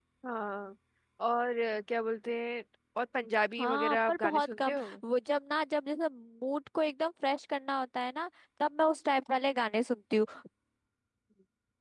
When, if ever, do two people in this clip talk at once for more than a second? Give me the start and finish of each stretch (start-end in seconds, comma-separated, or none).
3.6-5.0